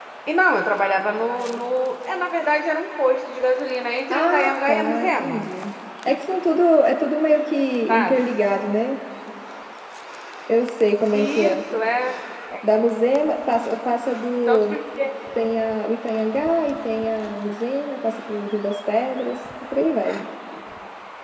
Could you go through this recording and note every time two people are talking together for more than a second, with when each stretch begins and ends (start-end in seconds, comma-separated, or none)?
4.1-5.4